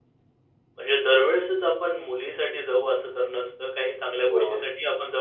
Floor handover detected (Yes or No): No